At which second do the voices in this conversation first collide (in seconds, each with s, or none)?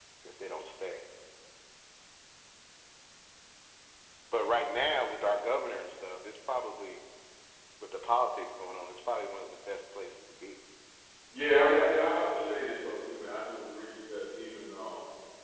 none